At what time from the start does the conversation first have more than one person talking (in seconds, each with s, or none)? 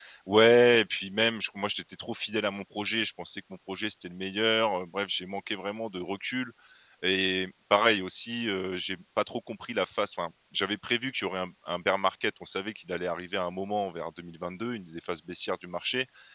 none